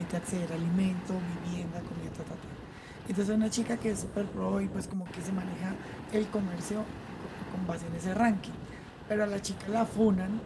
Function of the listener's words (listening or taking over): listening